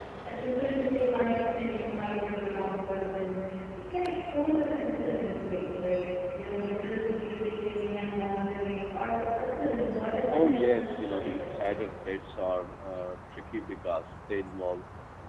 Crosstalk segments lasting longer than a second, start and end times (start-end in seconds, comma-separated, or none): 10.3-11.7